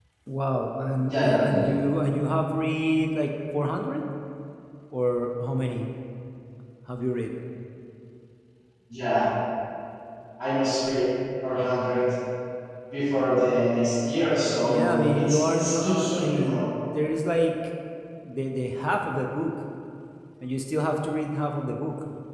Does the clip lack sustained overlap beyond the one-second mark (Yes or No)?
No